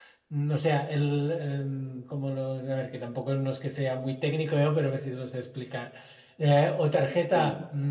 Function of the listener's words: listening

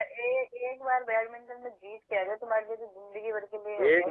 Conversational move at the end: taking over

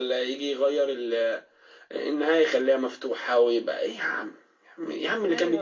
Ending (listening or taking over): listening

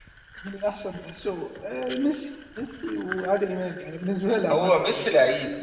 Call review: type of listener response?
taking over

